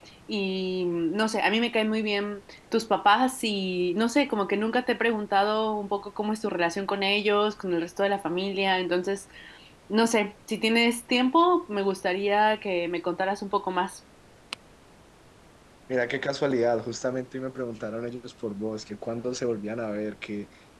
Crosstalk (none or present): none